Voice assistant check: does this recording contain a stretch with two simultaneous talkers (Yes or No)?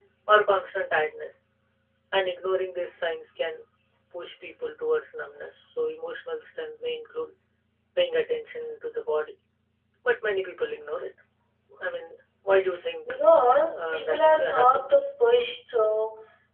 Yes